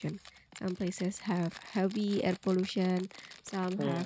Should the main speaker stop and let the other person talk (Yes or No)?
No